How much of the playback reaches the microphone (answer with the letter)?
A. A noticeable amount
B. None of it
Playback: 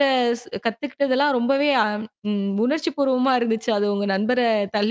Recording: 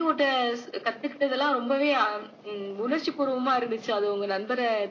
A